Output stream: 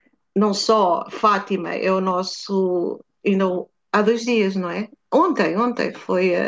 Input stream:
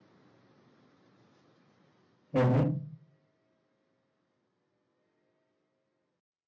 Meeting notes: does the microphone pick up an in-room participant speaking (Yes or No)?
Yes